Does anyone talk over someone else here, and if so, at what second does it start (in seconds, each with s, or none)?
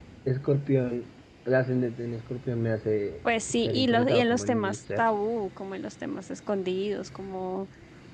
3.5 s